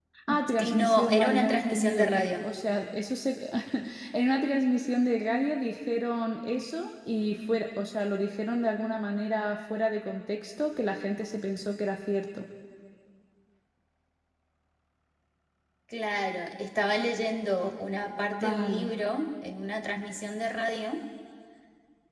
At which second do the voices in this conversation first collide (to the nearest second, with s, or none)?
1 s